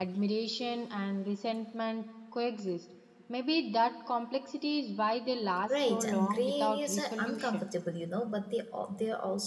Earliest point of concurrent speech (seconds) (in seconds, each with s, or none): 5.7 s